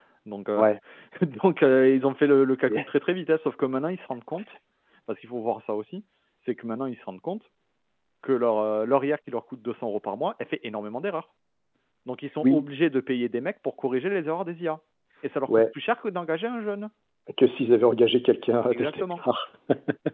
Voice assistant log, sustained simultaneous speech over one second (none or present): none